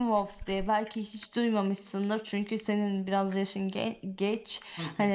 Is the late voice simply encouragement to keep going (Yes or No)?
Yes